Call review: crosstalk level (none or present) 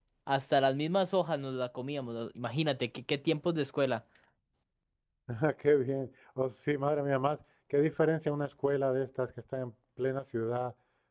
none